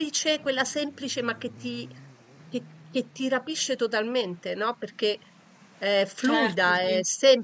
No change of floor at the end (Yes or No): Yes